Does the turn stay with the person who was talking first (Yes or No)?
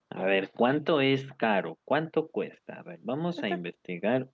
Yes